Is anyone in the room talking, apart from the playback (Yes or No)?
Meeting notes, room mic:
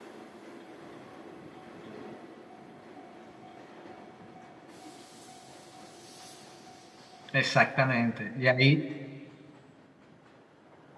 Yes